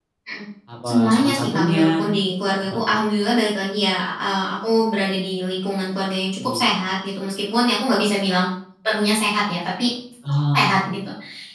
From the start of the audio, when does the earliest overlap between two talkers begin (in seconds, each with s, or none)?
0.9 s